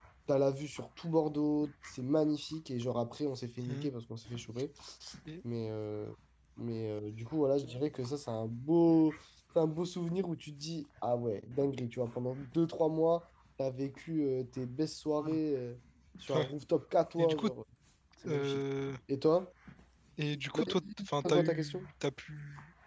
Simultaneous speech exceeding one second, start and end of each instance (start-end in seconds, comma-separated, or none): 20.5-21.9